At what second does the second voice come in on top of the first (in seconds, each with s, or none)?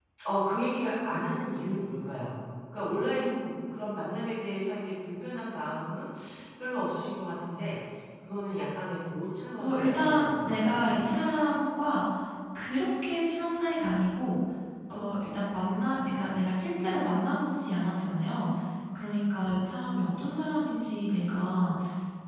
9.6 s